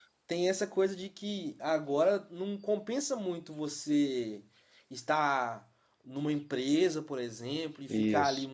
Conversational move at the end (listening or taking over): listening